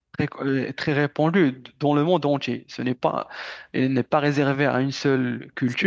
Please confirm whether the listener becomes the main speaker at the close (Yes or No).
No